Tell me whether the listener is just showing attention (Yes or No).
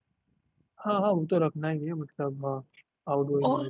No